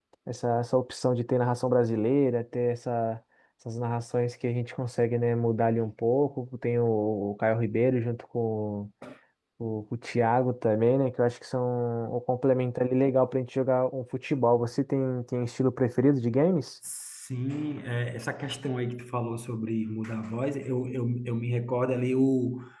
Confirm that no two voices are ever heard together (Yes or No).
Yes